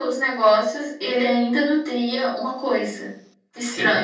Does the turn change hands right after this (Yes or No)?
Yes